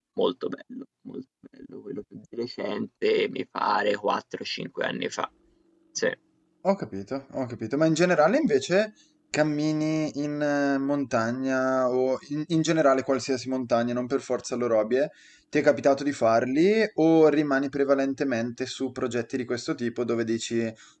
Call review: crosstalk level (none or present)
none